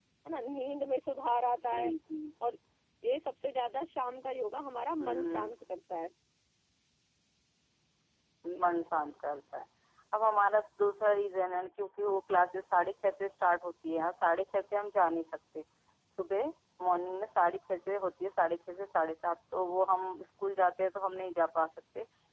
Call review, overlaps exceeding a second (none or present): none